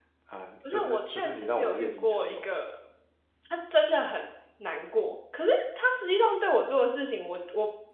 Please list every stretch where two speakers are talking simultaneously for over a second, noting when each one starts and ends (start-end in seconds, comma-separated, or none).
0.7-2.5